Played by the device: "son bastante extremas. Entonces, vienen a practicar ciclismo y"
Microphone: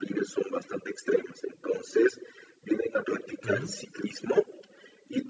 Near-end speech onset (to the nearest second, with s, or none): 3 s